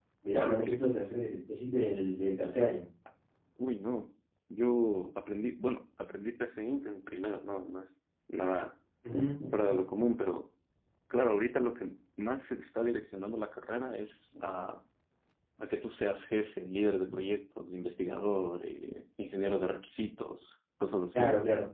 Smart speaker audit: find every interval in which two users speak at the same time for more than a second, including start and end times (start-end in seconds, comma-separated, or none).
none